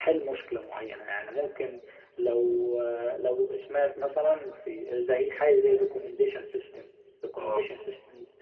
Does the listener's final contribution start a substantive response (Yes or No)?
No